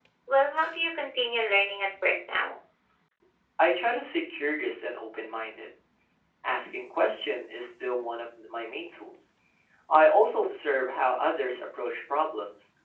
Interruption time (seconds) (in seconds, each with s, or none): none